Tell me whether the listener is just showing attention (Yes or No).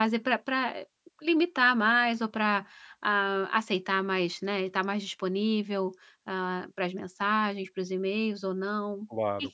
No